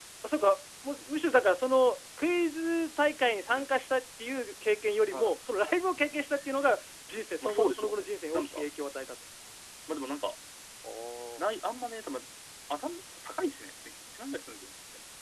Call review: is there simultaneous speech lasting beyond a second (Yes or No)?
Yes